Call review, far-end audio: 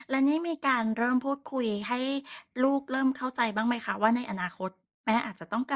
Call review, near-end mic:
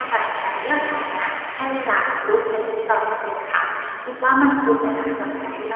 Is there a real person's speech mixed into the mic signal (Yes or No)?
Yes